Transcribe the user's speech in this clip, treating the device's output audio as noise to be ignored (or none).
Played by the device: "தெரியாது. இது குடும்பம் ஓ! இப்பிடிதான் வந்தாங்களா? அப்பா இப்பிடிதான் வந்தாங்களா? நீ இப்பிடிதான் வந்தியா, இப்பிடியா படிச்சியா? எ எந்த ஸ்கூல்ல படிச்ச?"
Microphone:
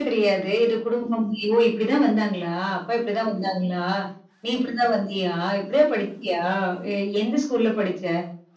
none